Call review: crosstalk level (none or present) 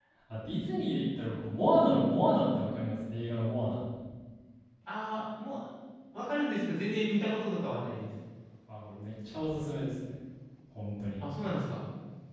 none